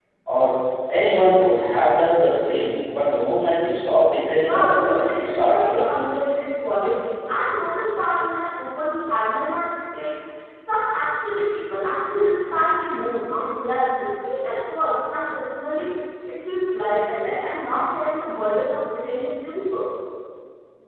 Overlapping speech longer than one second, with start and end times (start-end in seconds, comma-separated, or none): 4.4-5.9